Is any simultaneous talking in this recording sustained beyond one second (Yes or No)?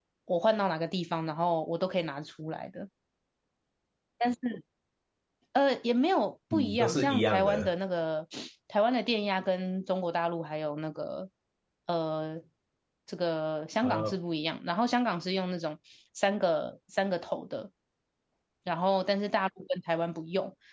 Yes